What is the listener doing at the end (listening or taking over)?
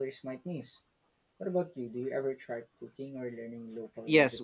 taking over